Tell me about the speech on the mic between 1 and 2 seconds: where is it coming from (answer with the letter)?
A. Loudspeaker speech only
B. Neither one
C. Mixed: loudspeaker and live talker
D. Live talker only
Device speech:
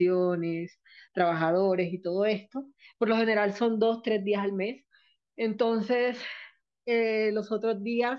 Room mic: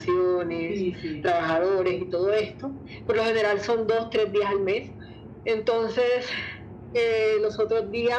C